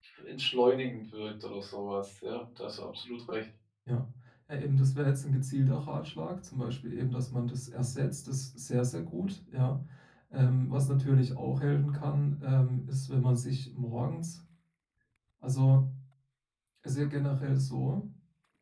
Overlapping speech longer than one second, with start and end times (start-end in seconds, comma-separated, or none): none